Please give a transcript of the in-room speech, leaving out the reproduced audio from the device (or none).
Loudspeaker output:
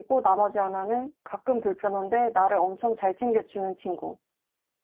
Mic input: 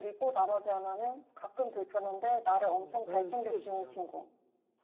어, 나는 챙겨주지 않아.